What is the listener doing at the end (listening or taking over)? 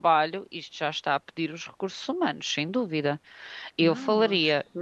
taking over